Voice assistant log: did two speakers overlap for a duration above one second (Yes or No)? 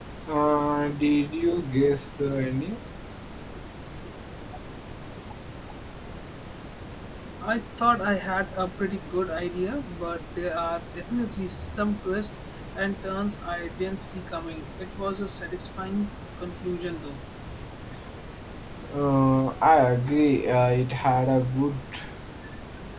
No